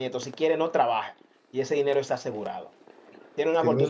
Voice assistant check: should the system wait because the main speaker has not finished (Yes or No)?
Yes